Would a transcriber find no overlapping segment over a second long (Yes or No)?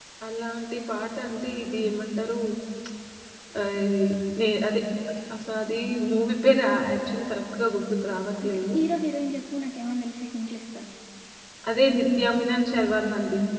Yes